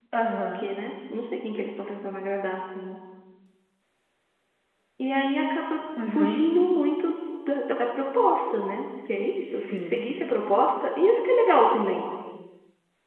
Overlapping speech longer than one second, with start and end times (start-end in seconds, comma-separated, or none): none